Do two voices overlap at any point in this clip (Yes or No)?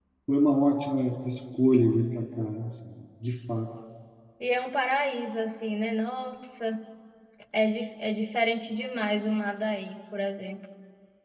No